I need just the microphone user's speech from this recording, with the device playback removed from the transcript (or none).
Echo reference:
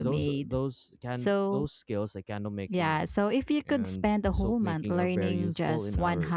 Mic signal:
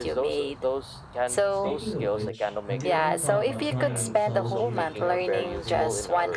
Speaking of which, have you ever thought about trying mixology or craft cocktails?